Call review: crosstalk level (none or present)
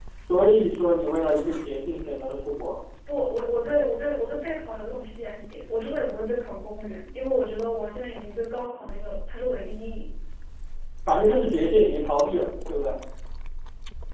none